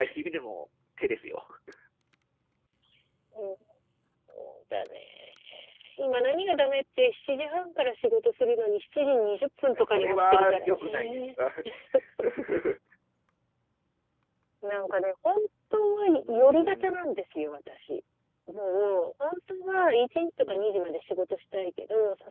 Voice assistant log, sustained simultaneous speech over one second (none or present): present